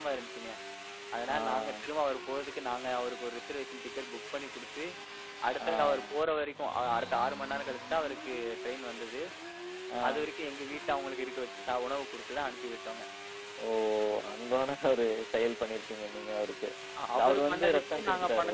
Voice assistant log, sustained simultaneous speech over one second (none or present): present